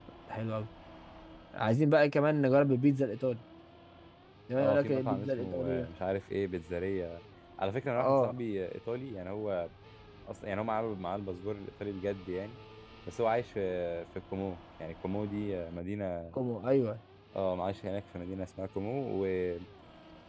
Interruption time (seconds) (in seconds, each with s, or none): 4.6 s